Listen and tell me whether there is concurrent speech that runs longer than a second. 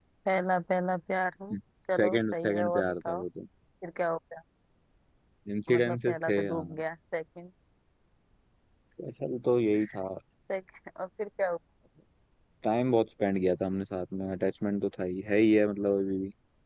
Yes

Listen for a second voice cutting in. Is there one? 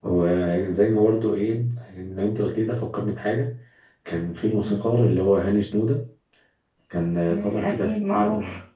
Yes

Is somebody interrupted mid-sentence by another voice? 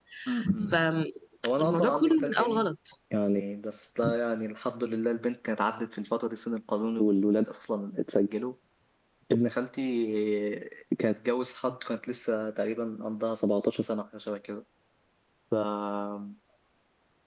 Yes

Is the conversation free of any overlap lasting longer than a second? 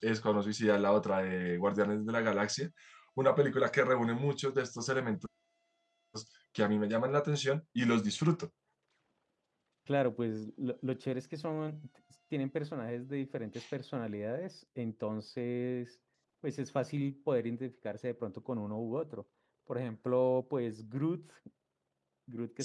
Yes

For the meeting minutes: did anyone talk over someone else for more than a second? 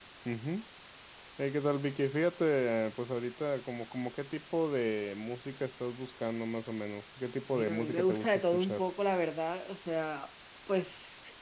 Yes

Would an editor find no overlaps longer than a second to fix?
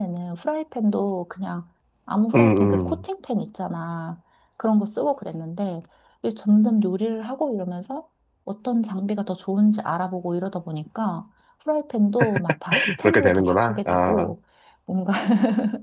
No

